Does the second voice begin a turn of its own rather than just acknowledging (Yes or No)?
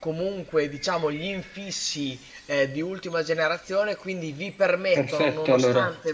No